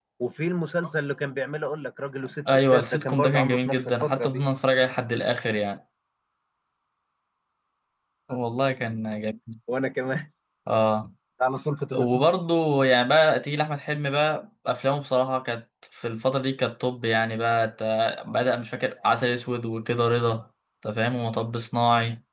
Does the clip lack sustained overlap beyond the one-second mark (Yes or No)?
No